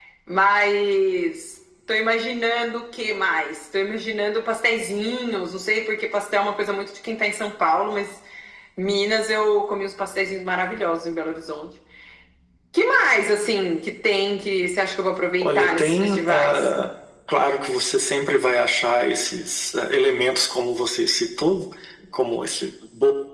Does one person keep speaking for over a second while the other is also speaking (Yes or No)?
Yes